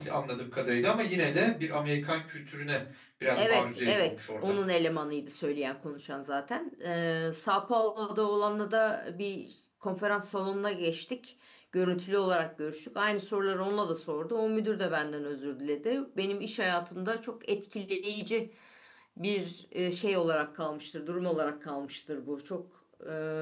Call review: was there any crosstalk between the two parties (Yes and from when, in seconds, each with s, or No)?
Yes, from 3.3 s